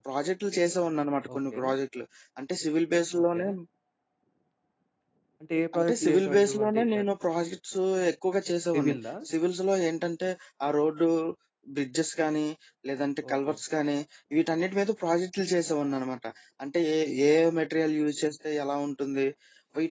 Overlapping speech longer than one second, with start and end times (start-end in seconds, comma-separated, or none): 5.8-7.0